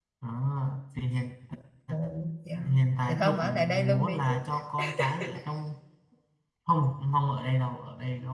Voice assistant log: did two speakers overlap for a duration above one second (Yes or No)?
Yes